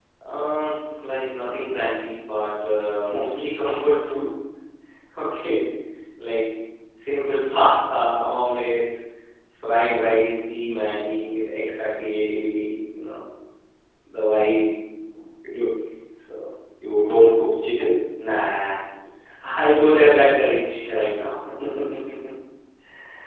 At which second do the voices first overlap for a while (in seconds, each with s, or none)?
none